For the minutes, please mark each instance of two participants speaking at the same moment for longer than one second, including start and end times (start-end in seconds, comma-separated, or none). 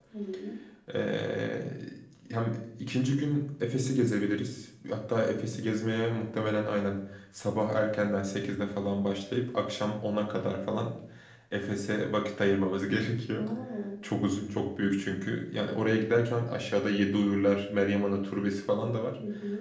none